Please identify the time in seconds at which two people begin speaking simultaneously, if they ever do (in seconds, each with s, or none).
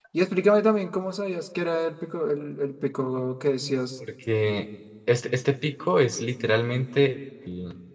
none